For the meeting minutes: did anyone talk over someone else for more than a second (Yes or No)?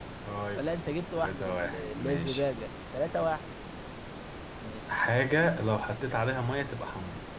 Yes